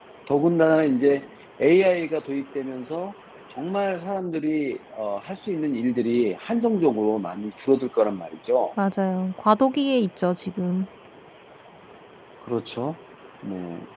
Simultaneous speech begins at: none

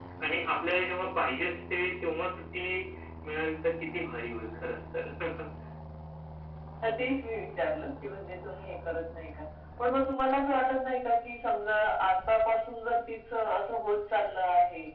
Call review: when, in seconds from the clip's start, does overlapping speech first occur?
none

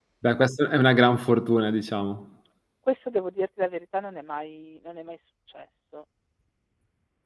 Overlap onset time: none

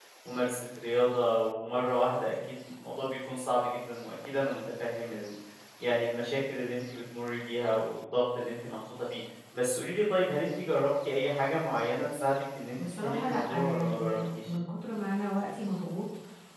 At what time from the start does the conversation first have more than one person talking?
12.8 s

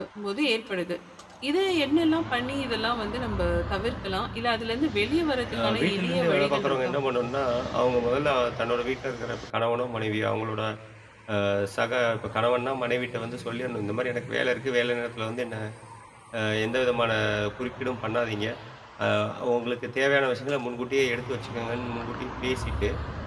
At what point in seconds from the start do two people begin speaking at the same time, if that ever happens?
5.5 s

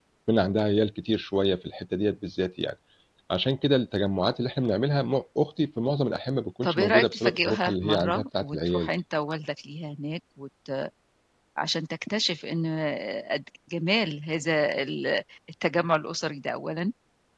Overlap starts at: 6.6 s

